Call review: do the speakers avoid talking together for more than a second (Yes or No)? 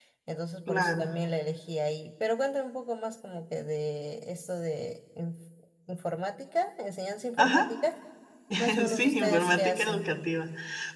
No